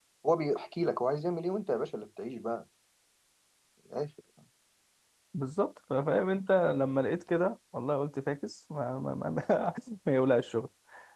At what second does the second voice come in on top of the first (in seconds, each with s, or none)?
none